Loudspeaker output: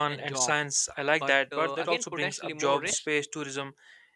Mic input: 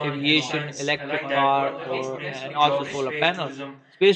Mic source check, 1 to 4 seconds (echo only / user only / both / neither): both